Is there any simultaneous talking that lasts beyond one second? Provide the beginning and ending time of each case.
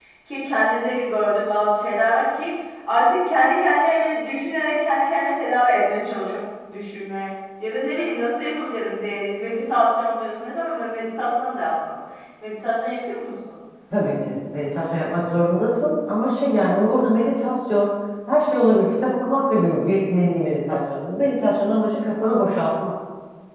none

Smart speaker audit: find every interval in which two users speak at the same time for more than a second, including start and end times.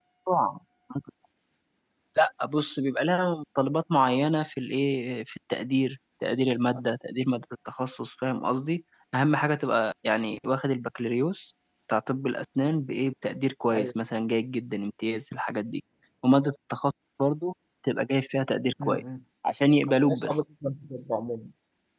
none

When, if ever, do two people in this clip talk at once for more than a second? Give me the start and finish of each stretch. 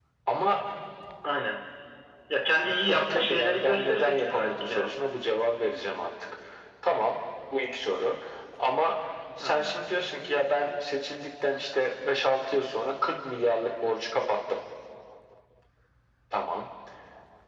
2.9-5.0

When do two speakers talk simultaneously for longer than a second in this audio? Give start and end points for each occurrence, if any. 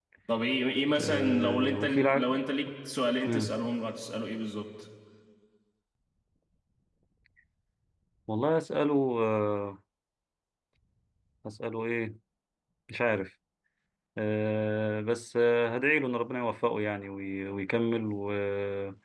1.0-2.4

